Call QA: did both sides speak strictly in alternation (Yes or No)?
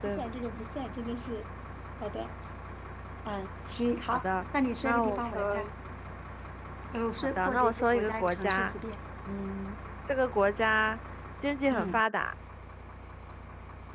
No